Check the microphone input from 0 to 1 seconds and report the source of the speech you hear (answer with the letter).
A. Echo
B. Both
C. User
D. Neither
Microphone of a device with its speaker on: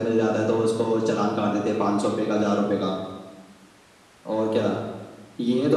A